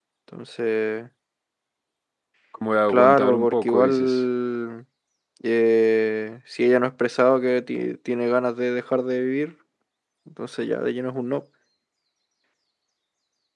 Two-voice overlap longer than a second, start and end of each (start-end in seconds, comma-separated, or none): 2.9-4.2